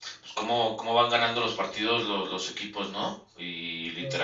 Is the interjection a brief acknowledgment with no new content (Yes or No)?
Yes